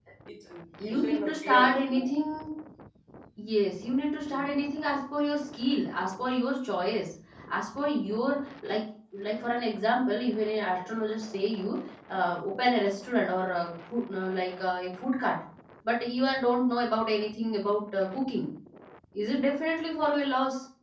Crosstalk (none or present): present